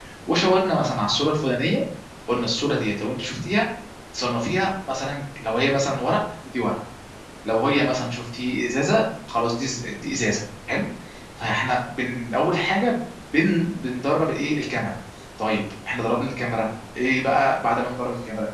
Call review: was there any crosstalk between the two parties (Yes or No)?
No